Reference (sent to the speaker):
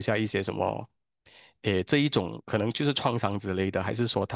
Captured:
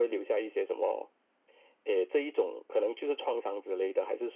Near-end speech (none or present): none